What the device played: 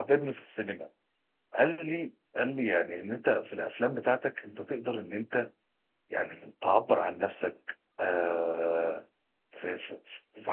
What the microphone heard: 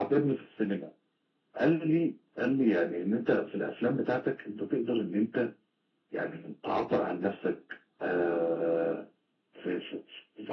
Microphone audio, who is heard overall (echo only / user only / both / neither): echo only